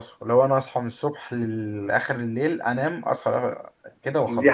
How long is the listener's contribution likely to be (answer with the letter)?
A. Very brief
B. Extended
B